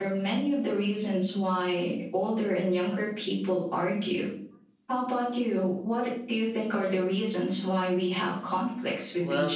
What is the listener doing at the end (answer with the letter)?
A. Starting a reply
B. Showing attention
A